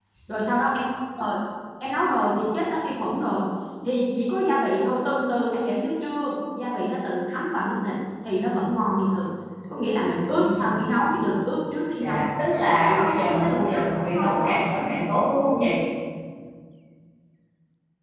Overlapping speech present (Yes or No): Yes